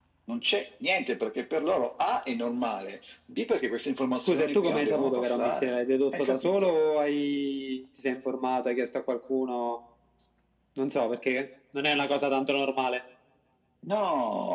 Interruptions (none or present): present